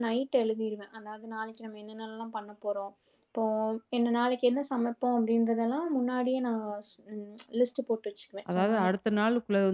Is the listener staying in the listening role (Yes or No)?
No